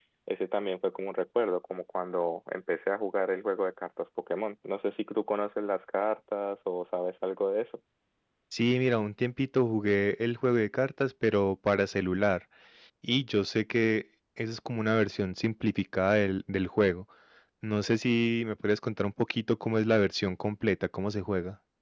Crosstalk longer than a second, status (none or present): none